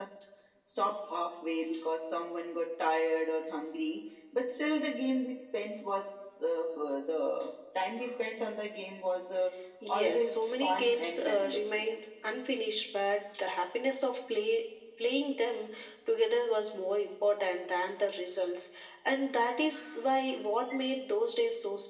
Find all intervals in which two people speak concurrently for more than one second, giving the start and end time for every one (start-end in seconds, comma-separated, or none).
9.9-11.8